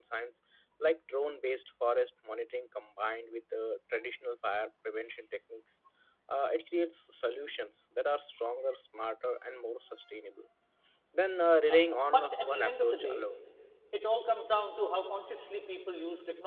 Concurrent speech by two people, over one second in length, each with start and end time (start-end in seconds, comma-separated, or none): 11.7-13.2